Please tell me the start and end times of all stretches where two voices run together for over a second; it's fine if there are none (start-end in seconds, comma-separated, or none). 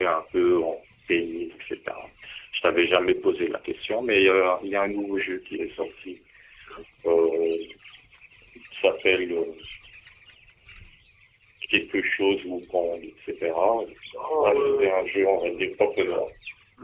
14.4-15.7